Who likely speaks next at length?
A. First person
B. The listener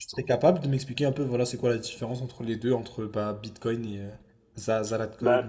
B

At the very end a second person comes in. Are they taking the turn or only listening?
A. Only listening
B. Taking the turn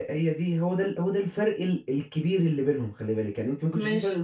A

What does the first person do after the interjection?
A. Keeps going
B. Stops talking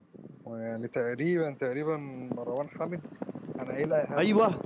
B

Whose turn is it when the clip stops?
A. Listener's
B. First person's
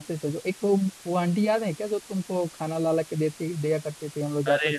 A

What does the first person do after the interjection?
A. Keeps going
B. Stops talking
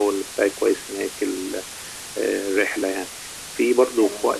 A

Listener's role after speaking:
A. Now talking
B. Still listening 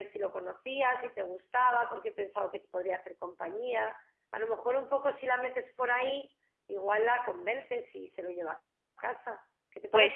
A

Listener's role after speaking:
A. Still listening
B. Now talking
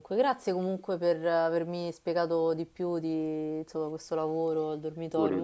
A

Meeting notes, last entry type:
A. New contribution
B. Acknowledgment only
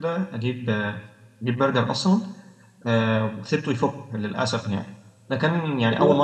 B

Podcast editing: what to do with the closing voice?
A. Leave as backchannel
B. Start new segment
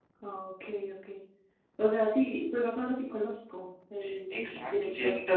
B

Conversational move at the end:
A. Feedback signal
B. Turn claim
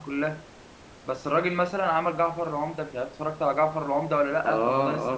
B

